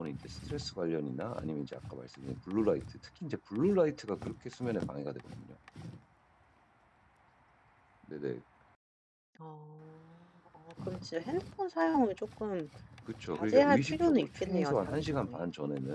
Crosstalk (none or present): present